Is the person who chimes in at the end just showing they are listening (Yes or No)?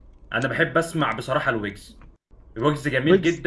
Yes